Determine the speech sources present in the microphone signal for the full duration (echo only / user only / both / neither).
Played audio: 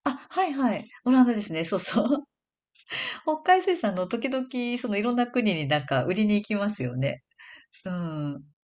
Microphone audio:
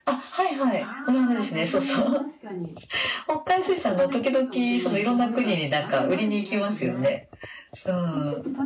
both